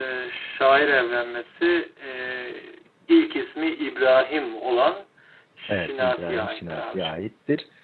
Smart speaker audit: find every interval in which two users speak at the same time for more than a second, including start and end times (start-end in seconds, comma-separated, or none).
5.7-7.1